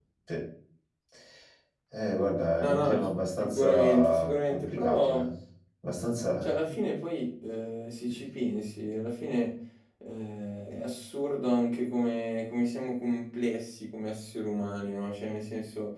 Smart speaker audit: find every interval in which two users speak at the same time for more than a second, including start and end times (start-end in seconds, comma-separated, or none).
3.4-5.3